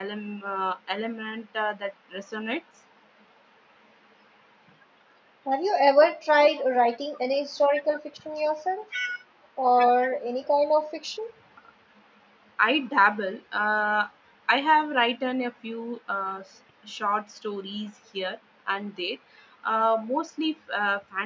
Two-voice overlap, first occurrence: none

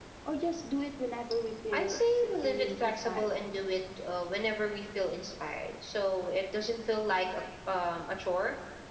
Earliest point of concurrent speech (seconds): 1.7 s

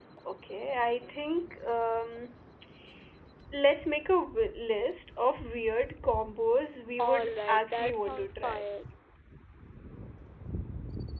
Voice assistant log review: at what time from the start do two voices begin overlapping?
7.0 s

